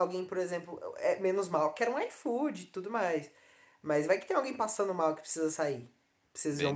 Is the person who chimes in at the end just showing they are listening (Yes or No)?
No